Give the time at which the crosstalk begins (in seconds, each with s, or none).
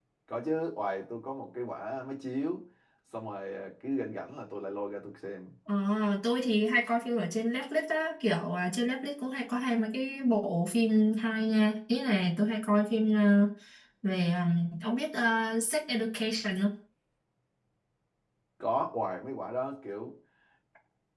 none